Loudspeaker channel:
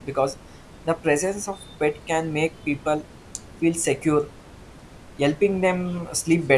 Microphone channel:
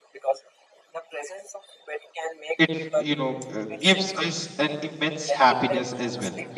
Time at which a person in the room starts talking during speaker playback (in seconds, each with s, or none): 2.6 s